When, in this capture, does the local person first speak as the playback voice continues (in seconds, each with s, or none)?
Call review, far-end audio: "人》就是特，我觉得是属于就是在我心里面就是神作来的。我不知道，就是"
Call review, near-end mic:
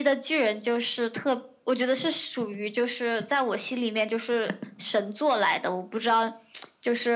none